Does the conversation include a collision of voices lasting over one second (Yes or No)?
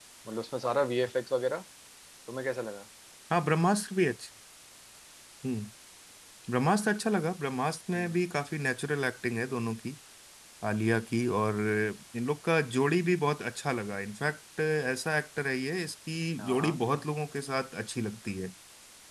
No